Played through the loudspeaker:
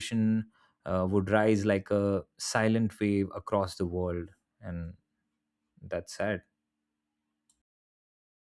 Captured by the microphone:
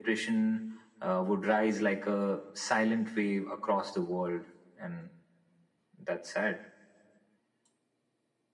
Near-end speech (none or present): none